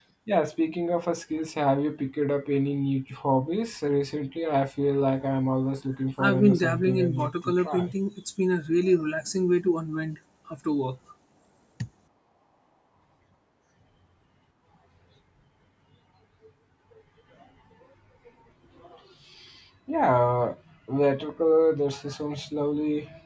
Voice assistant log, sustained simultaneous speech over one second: present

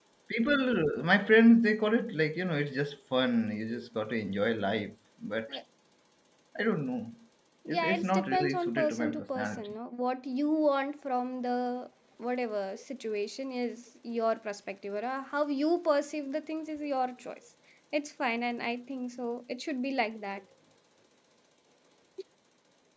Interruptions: present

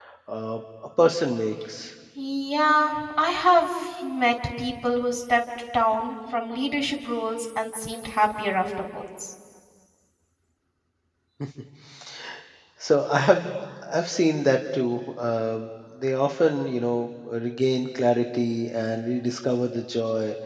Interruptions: none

